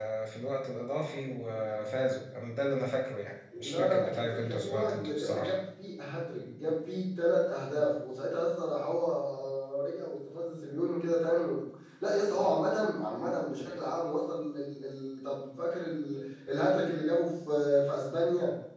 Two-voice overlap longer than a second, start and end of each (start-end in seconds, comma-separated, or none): 3.6-5.5